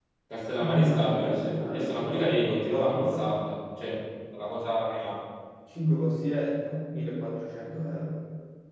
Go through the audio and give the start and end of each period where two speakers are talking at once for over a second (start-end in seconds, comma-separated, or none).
0.6-3.3